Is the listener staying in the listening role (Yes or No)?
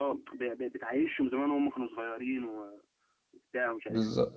Yes